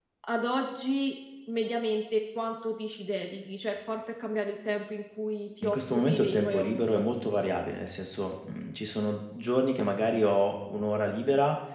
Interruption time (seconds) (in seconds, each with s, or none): 5.6 s